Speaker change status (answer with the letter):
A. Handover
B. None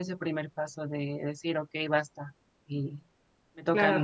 A